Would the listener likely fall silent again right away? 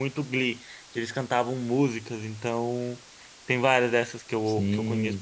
No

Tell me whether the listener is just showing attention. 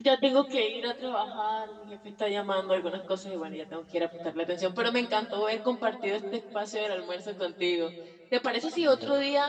Yes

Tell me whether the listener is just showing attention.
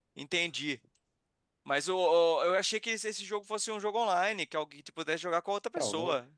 No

